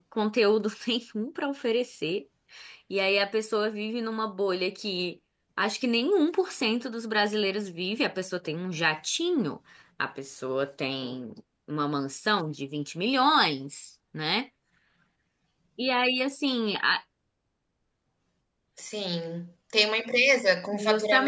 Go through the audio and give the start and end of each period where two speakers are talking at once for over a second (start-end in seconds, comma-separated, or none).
none